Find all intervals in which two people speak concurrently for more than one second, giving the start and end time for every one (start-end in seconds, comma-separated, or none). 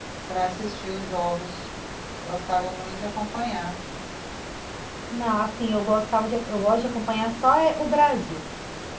none